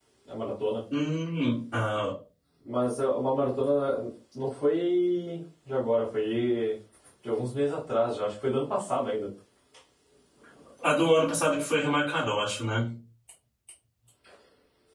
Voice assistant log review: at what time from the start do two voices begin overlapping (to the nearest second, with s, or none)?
none